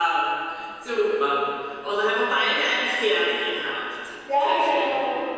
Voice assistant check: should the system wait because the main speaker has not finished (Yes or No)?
No